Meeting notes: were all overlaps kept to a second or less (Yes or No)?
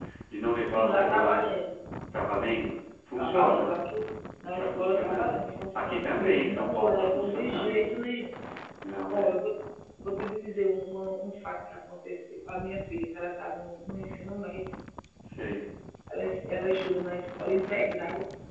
No